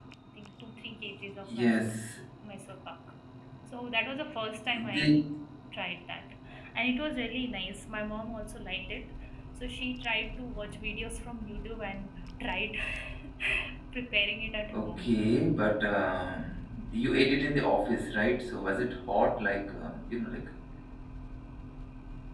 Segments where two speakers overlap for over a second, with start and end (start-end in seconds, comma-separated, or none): none